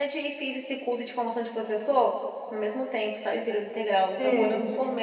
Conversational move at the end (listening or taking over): listening